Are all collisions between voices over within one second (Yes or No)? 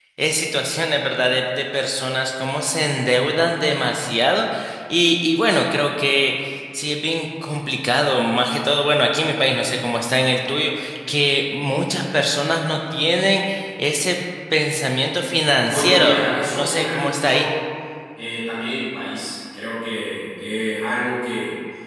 No